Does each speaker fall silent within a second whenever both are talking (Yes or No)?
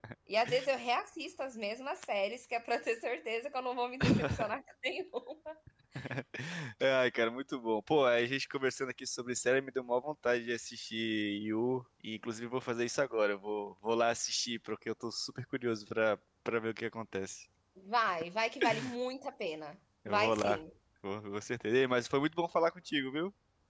Yes